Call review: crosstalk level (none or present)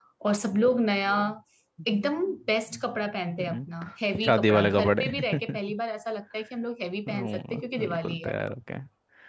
present